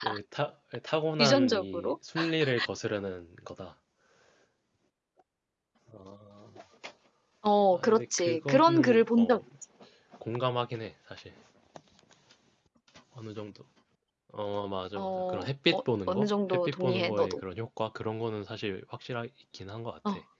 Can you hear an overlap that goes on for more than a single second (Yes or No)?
Yes